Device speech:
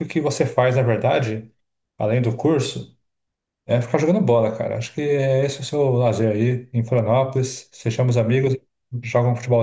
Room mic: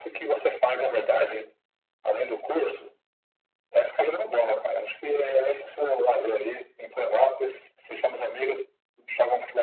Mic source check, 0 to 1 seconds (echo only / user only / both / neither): echo only